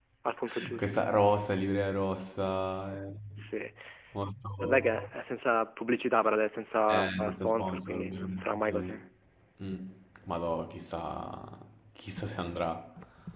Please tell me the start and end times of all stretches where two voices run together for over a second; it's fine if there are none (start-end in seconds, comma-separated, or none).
6.9-8.9